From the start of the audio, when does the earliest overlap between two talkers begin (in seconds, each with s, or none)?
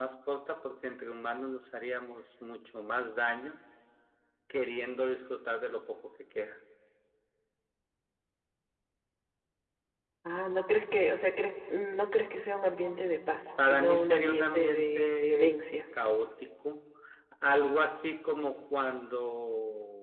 13.6 s